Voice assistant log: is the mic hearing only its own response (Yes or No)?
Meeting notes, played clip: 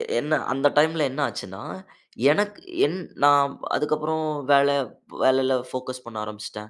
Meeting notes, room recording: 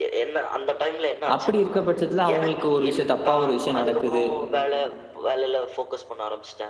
No